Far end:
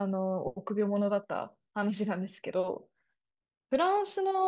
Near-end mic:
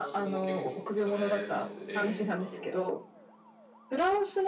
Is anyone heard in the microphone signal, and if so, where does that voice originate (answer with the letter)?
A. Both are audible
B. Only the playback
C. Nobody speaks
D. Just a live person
A